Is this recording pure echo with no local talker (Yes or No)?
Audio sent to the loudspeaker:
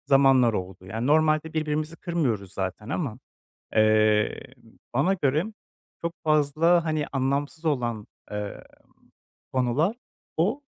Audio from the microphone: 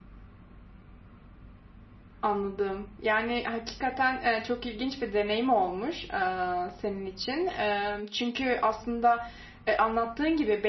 No